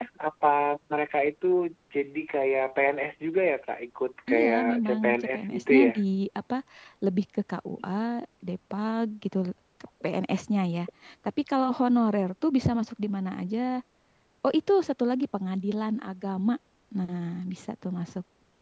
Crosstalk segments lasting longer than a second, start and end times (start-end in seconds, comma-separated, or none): 4.3-5.9